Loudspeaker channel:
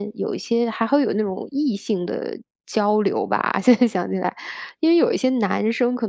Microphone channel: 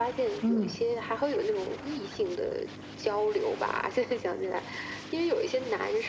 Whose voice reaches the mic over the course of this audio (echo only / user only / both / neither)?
both